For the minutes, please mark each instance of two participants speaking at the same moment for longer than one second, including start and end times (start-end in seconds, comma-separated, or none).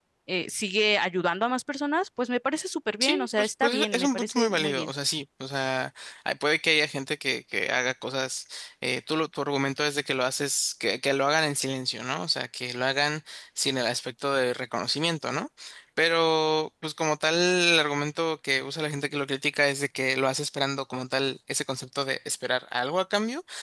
3.0-4.9